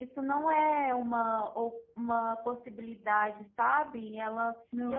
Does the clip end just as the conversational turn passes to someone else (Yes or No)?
No